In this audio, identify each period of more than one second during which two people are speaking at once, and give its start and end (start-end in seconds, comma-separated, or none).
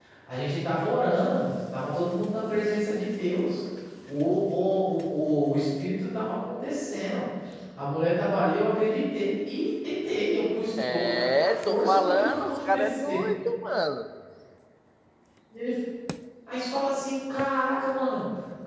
10.9-13.2